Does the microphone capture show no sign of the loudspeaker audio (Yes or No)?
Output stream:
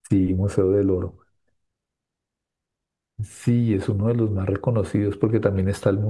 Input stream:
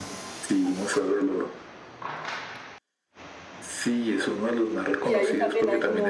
No